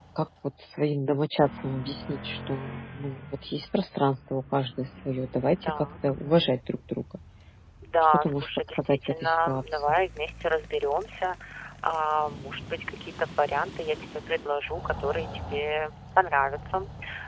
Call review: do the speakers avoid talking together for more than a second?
No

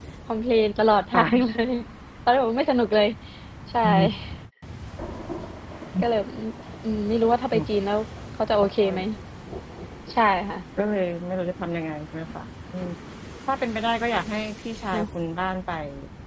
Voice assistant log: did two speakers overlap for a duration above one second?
No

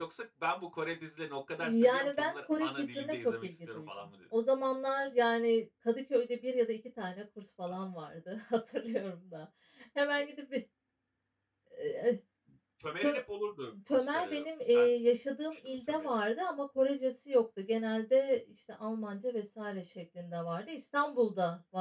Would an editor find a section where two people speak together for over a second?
Yes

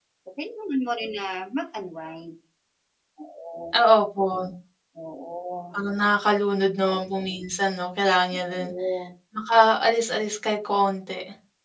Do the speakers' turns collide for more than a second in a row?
No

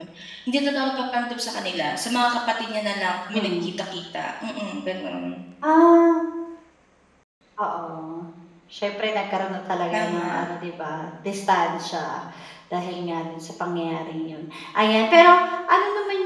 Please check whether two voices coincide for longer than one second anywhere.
No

